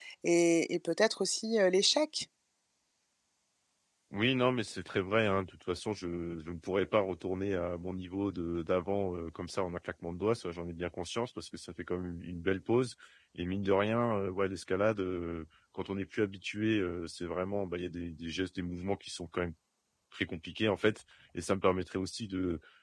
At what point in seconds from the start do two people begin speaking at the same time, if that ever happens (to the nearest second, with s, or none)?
none